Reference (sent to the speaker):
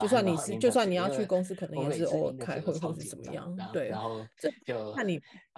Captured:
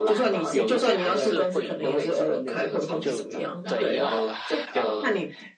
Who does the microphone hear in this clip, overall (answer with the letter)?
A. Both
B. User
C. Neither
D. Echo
A